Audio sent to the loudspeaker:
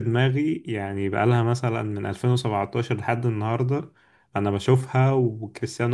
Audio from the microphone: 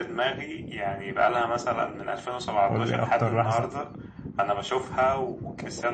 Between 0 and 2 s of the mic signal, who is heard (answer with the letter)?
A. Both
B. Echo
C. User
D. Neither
B